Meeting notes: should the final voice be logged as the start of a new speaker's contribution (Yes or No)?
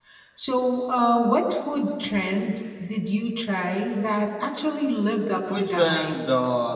Yes